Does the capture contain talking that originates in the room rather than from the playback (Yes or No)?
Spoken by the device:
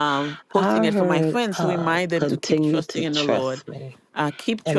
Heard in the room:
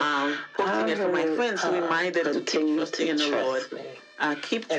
No